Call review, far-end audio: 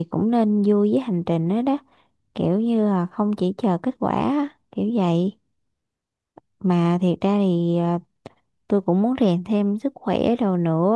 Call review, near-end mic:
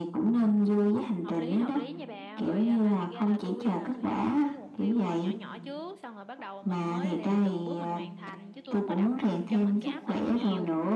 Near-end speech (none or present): present